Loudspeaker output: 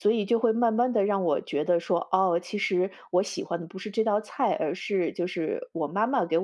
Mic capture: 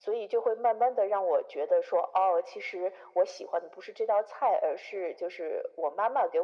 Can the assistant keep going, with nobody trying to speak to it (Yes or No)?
Yes